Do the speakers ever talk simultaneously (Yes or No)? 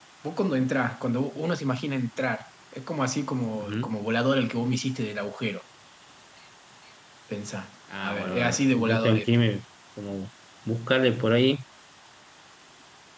Yes